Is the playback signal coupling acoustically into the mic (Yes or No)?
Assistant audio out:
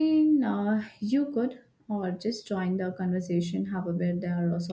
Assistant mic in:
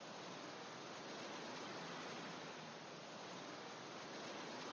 No